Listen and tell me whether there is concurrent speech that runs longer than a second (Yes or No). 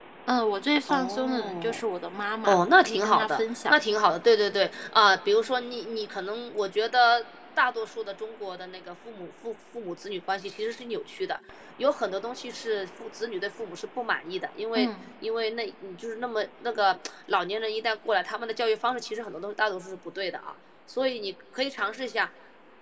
Yes